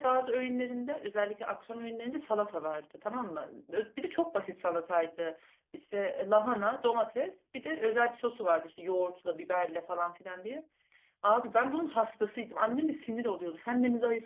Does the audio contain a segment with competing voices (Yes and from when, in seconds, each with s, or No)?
No